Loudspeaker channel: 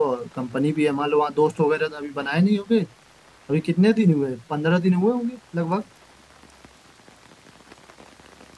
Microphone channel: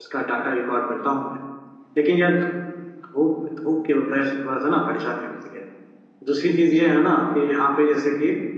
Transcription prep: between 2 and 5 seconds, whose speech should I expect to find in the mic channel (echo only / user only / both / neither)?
user only